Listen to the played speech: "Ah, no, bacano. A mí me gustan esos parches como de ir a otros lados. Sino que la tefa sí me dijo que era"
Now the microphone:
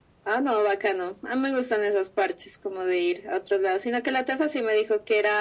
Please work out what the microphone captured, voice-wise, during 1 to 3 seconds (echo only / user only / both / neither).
echo only